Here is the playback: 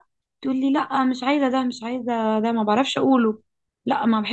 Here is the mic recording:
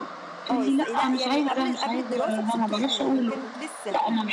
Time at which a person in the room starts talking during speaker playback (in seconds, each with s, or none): 0.5 s